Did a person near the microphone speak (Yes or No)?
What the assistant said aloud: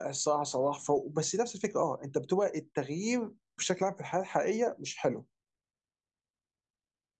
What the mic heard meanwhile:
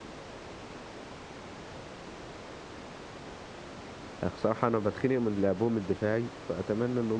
Yes